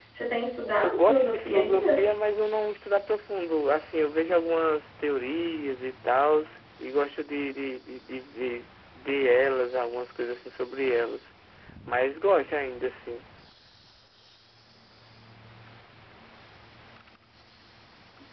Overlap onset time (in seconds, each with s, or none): 0.8 s